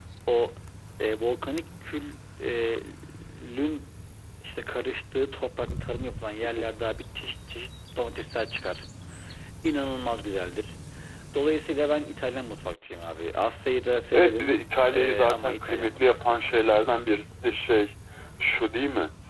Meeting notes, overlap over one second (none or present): present